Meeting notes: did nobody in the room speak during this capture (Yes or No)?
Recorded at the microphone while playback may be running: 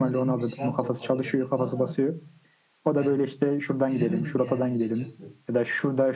No